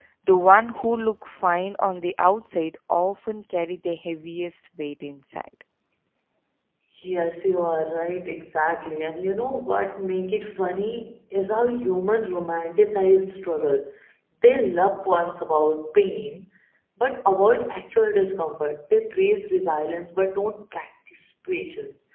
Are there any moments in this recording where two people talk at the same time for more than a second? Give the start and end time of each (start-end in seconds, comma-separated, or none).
none